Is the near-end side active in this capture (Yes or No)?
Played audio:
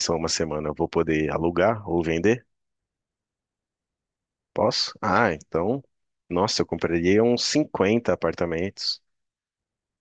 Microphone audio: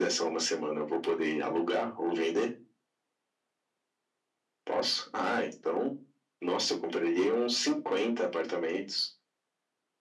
No